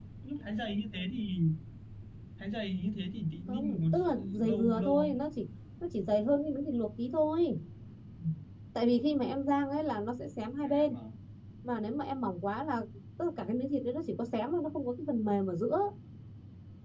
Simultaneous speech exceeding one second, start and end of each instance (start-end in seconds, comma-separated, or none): 3.5-5.1